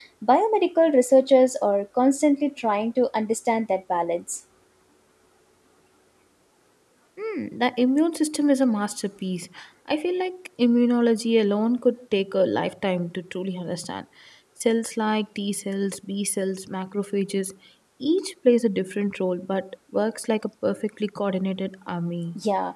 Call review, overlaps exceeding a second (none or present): none